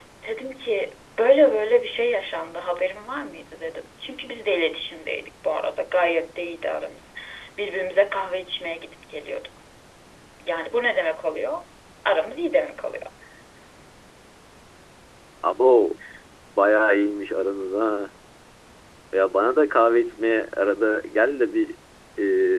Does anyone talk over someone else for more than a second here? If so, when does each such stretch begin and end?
none

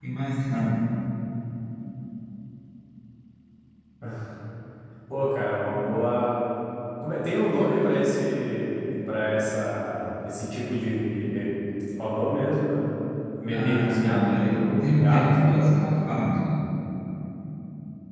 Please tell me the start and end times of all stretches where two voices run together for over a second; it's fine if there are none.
13.5-15.8

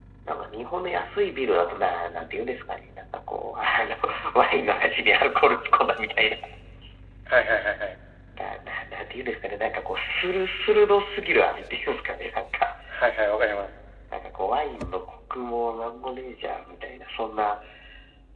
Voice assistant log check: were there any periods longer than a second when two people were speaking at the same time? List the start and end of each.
none

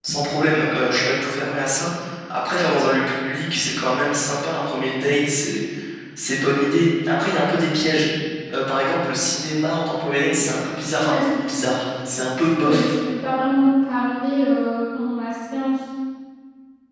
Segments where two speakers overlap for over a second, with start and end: none

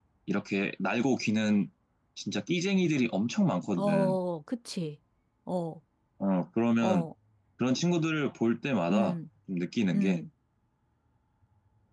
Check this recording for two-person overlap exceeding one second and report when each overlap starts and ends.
none

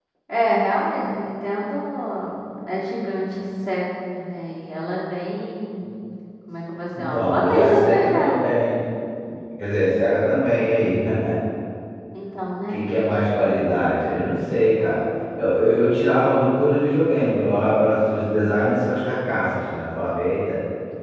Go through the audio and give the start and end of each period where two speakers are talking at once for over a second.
7.0-8.5

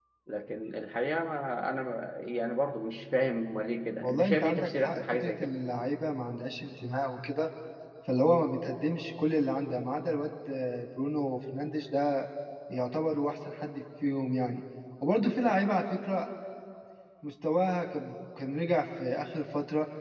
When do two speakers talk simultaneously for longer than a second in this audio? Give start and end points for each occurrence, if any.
4.0-5.5

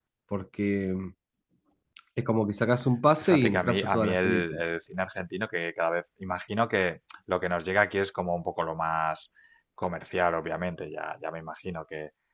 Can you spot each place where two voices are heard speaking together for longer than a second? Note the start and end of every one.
3.2-4.6

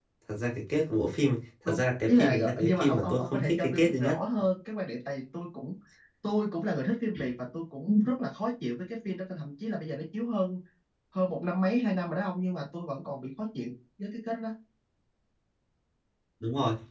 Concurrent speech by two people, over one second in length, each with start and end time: 1.7-4.2

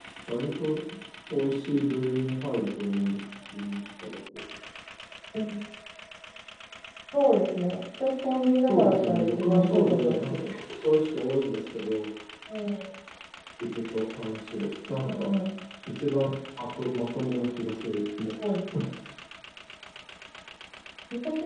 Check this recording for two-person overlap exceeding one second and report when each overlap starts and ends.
8.7-10.5

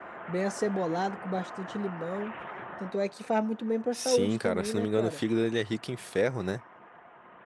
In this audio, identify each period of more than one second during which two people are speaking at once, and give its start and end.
3.9-5.2

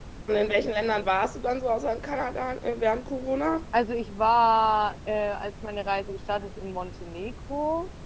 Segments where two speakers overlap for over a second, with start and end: none

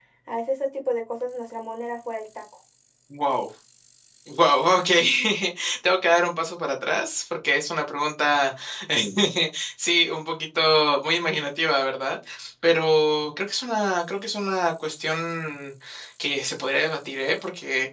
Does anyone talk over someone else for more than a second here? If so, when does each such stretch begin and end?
none

